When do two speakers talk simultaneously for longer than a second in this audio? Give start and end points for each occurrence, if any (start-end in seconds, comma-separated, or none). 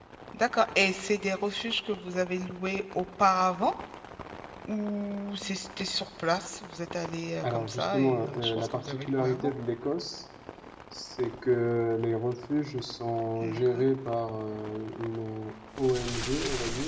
7.4-9.5